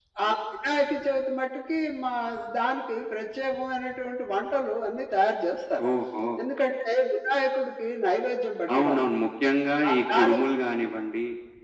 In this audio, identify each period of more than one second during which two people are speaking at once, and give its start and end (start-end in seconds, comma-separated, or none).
none